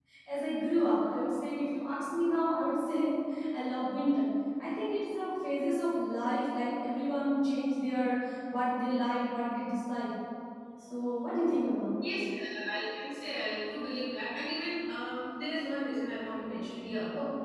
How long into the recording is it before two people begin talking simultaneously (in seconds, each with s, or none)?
none